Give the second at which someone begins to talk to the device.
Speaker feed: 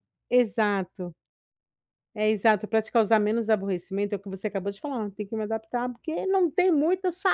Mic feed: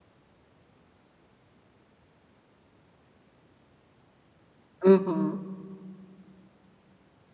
4.8 s

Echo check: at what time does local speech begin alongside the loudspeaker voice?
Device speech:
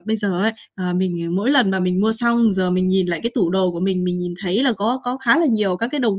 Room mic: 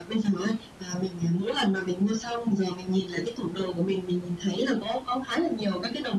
none

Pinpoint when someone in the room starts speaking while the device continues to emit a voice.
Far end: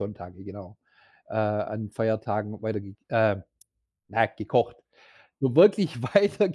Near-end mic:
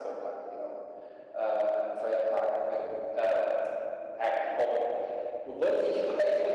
none

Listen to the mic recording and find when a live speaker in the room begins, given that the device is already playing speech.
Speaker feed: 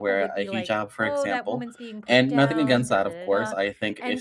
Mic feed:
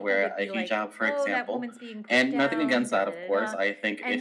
none

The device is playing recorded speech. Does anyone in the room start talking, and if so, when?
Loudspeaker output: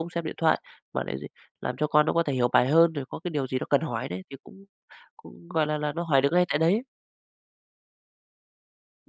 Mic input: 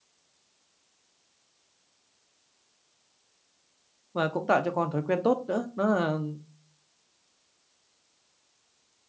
4.1 s

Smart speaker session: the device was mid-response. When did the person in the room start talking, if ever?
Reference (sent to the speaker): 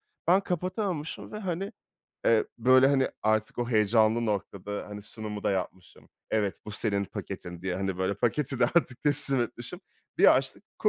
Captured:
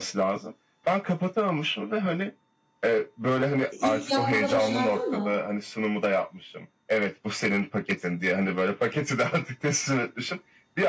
3.7 s

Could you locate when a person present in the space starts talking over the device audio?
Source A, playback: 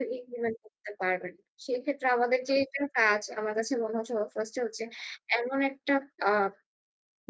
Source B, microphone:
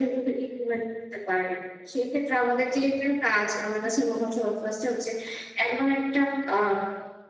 none

